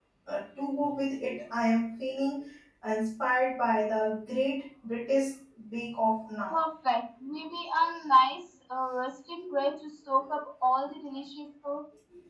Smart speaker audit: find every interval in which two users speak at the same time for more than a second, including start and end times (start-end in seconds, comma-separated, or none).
none